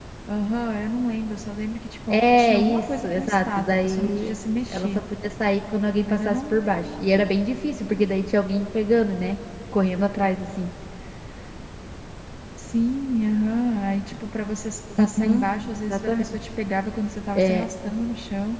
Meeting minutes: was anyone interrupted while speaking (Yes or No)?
Yes